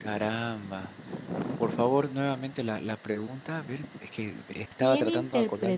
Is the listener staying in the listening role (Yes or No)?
No